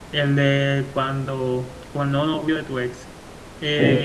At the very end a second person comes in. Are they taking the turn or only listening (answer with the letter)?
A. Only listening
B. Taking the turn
A